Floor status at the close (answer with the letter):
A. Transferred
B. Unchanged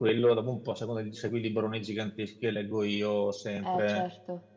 B